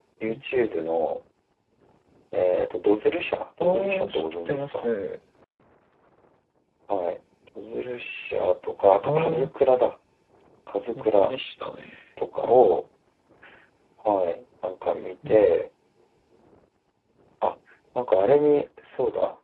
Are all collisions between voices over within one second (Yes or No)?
No